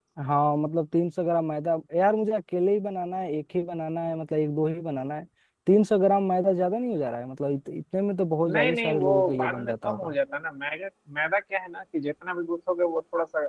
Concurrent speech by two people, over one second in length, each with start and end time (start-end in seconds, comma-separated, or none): 8.5-10.1